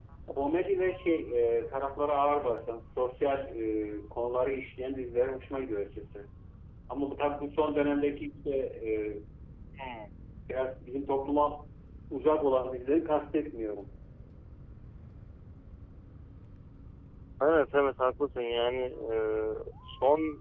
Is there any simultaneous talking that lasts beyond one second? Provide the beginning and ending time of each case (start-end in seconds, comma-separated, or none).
none